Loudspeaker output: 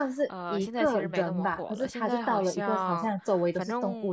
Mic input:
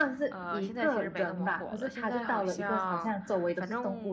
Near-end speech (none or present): none